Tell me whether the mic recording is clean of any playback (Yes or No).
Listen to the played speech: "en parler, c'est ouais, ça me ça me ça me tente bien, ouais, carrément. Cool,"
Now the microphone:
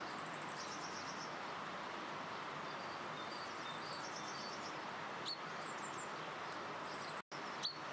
Yes